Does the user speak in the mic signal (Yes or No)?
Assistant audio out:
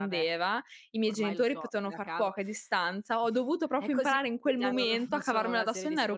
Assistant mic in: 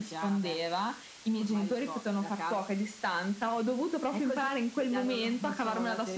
No